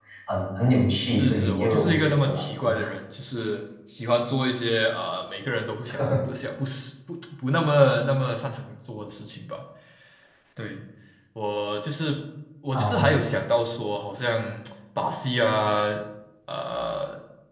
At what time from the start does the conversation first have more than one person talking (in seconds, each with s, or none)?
1.0 s